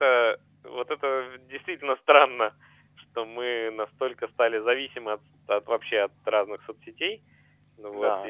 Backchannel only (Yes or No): No